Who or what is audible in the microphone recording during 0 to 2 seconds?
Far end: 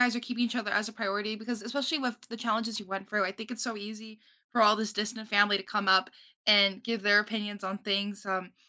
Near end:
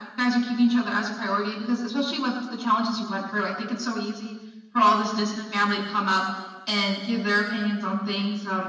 echo only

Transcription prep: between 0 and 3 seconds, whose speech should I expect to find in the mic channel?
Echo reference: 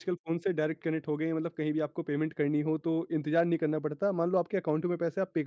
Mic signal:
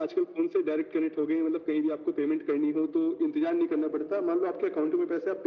echo only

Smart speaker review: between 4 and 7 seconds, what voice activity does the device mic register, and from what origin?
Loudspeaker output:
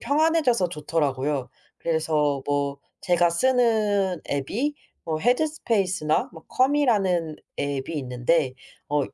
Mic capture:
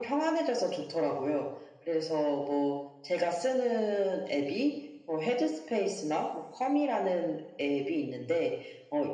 echo only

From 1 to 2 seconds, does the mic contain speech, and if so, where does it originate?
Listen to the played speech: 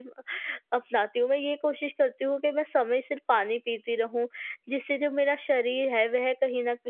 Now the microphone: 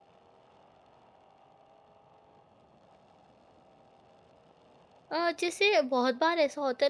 neither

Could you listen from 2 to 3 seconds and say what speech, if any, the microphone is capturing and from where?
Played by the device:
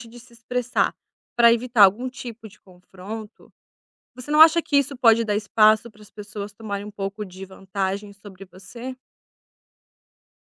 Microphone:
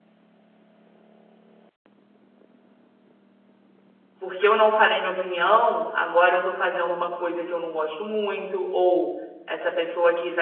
neither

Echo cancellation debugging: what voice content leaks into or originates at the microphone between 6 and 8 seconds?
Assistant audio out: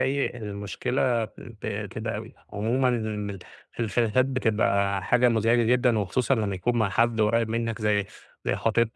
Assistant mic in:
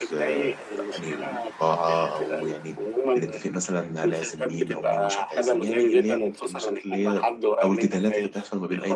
both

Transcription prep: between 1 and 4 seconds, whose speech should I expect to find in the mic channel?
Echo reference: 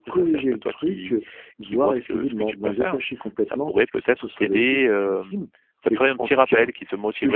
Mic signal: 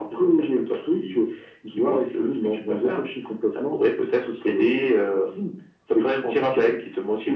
echo only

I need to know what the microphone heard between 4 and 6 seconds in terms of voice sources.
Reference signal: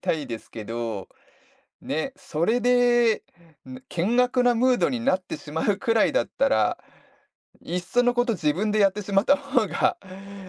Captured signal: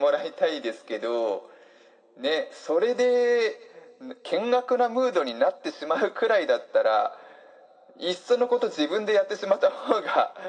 echo only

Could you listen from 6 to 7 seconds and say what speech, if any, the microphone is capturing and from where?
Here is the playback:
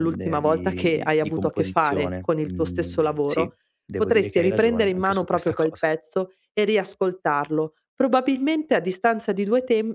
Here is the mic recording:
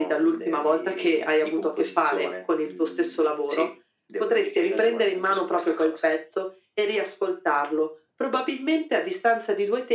echo only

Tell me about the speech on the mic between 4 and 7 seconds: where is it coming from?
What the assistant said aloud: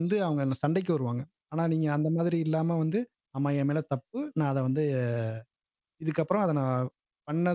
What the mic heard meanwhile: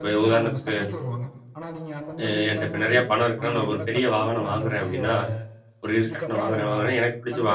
both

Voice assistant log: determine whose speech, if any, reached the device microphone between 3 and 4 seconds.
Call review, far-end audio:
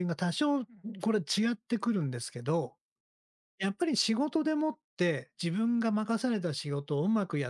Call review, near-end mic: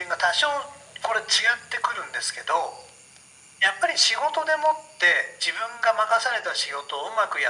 echo only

